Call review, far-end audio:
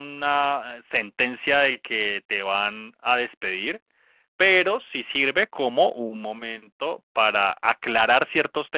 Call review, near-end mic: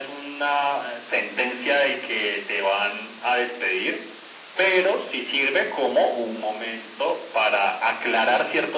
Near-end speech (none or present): none